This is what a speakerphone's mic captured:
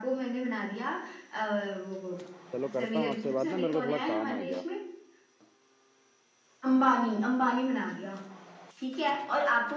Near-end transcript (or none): चलो करता हूँ आपसे बात ना मेरे को थोड़ा काम आ गया